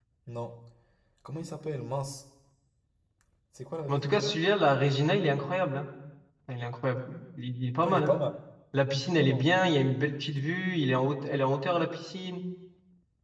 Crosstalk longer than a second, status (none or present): none